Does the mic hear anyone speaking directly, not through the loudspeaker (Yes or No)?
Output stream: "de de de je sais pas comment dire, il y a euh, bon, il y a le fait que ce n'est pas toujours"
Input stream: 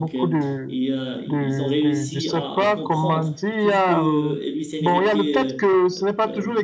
Yes